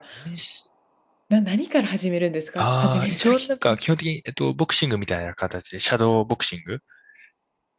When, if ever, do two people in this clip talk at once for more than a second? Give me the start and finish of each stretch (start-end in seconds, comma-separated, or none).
2.6-3.8